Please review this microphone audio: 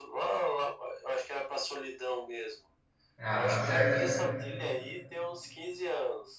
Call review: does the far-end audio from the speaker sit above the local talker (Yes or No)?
No